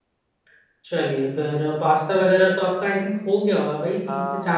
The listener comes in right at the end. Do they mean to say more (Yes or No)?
Yes